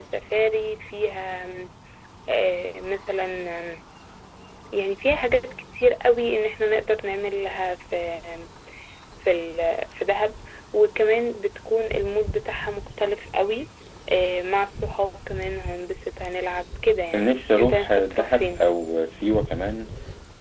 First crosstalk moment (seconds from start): 17 s

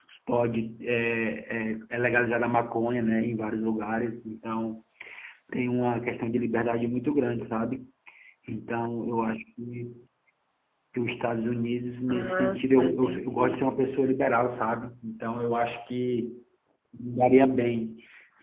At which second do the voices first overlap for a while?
12 s

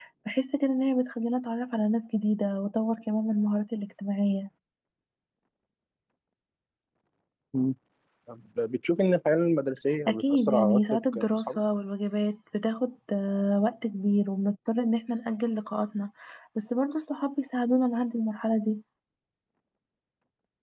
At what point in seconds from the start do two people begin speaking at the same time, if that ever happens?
10 s

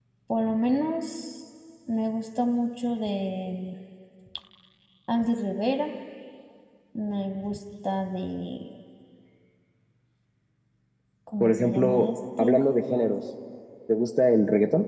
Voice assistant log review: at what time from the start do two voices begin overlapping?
11 s

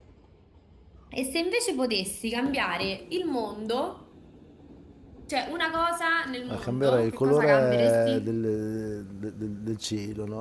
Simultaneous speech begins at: 6 s

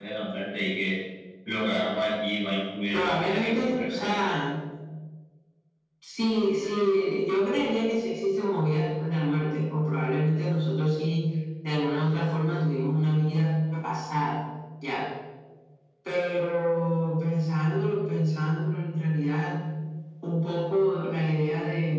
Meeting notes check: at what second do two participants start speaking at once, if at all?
3 s

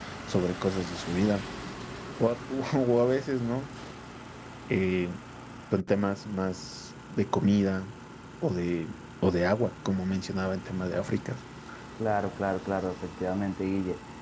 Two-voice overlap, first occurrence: none

